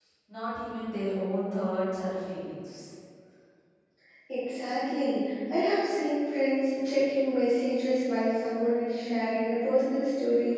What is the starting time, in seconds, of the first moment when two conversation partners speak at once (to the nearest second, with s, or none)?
none